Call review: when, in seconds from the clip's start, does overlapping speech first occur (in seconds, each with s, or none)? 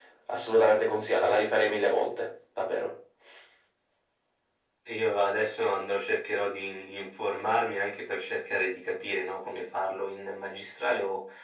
none